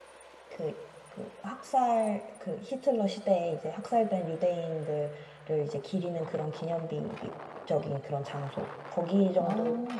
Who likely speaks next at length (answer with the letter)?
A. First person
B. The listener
A